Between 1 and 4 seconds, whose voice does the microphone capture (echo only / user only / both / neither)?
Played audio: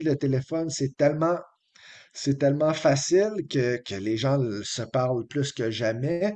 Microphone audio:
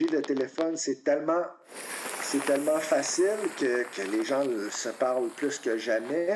echo only